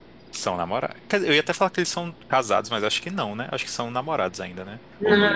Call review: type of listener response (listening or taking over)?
taking over